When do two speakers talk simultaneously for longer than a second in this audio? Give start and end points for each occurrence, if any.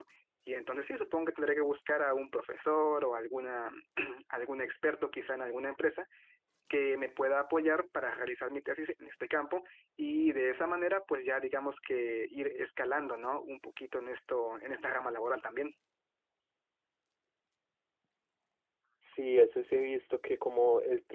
none

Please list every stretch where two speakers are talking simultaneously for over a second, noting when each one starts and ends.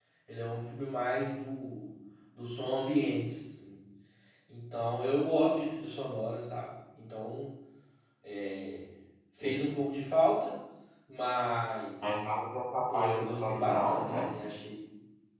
12.9-14.3

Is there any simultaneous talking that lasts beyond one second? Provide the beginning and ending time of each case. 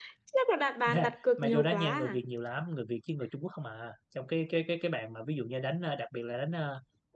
0.9-2.2

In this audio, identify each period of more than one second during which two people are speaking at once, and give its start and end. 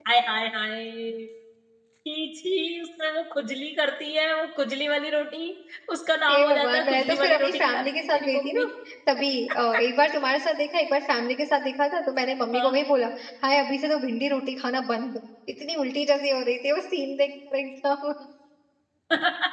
6.3-8.6

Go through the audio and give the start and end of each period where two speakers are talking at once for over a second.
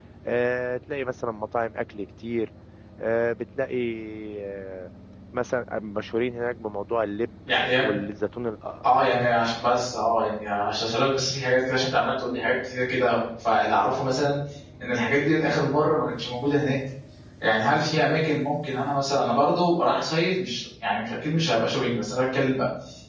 none

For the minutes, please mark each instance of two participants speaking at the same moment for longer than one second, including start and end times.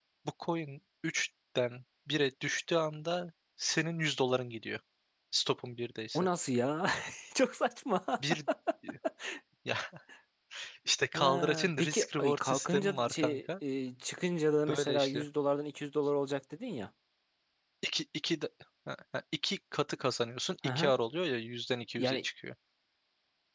11.1-13.4

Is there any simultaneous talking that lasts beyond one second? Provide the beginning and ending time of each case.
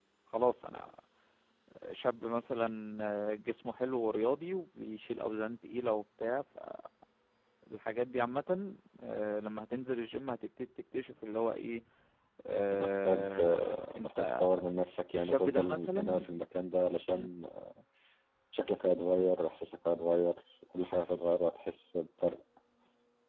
12.8-14.5, 15.1-16.4

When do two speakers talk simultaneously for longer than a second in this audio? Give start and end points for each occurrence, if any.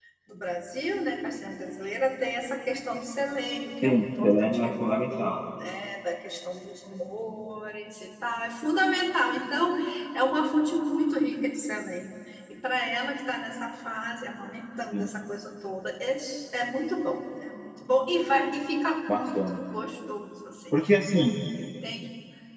3.8-5.4

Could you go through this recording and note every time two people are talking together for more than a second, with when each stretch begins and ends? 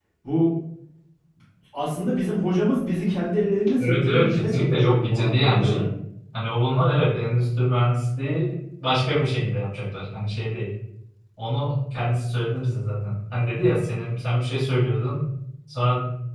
3.8-5.9

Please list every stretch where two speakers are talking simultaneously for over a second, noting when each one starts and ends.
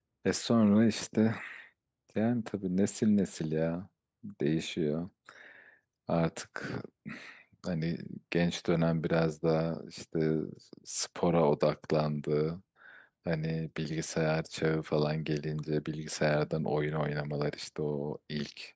none

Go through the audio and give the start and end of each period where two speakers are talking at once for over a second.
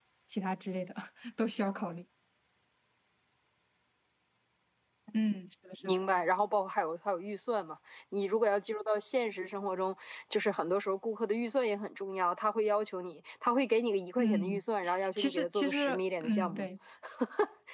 15.2-16.7

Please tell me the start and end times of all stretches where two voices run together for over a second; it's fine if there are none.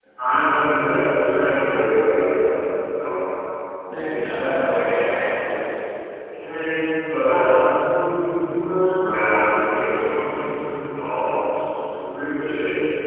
none

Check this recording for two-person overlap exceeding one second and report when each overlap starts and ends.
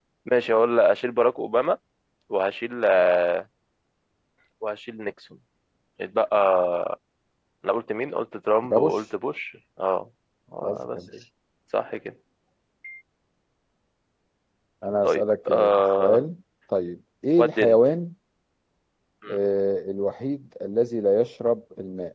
15.0-16.2

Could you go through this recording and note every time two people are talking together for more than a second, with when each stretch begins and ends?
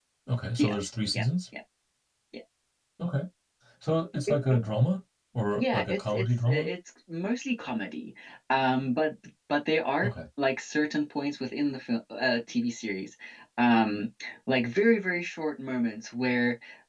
5.5-6.7

